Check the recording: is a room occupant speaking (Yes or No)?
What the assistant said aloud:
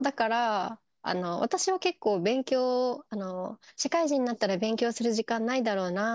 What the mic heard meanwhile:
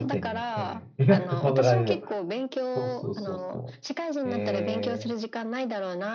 Yes